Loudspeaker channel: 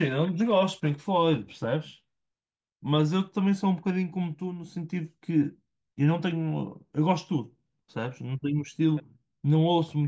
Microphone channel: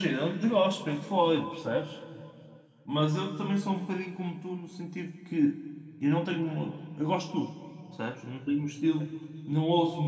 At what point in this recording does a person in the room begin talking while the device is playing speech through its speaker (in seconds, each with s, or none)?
none